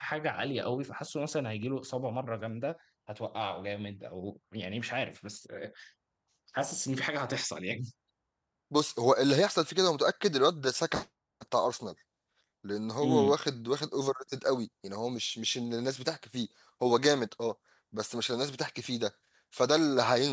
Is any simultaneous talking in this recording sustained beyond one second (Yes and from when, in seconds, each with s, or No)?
No